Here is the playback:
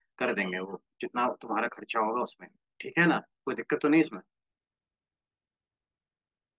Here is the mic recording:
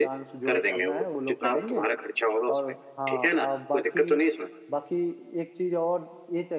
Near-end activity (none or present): present